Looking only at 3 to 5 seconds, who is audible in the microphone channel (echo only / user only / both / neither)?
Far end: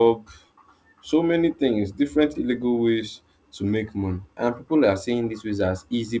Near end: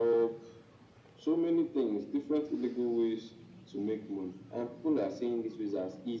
echo only